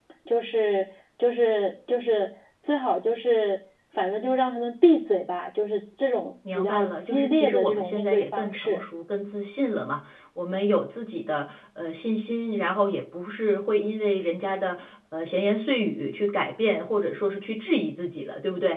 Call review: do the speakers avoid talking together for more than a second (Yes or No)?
No